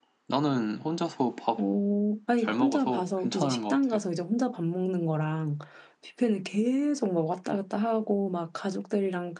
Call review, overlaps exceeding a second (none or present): present